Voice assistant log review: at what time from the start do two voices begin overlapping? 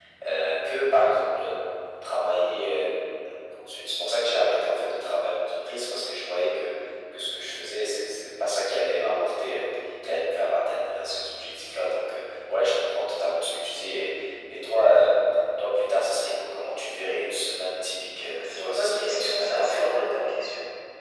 18 s

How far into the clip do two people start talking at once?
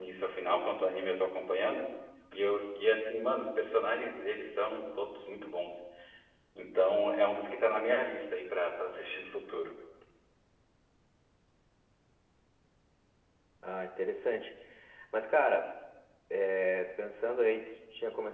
none

